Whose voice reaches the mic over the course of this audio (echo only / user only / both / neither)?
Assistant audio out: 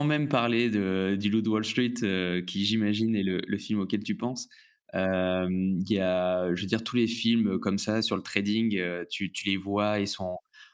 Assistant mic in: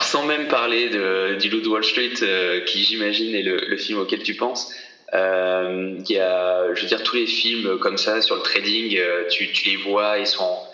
echo only